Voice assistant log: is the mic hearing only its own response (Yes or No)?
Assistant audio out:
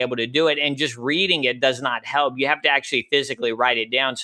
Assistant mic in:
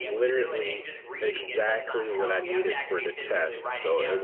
No